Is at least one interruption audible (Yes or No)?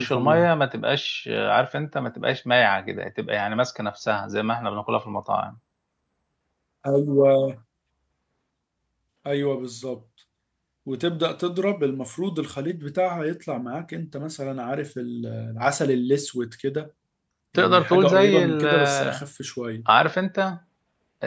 Yes